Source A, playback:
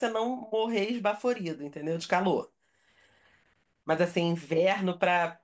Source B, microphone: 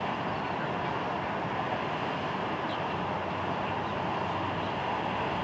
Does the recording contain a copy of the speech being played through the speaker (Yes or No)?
No